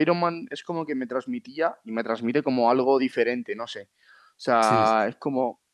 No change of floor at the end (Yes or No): Yes